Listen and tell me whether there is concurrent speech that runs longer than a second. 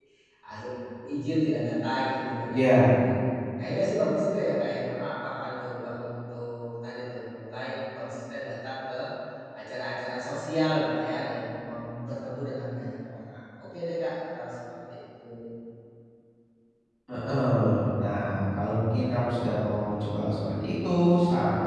No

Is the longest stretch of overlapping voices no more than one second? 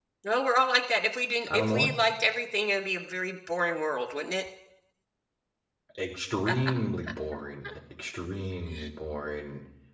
Yes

